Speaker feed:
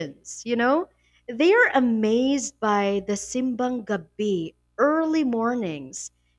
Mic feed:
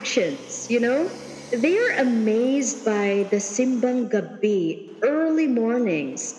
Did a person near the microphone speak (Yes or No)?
No